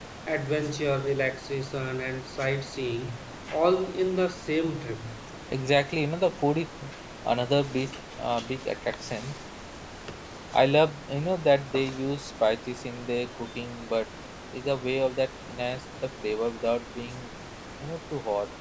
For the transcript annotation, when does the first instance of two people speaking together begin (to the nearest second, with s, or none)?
none